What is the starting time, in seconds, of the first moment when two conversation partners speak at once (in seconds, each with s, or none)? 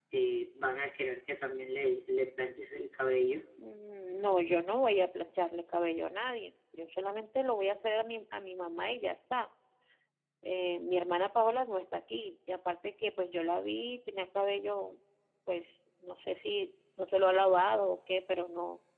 none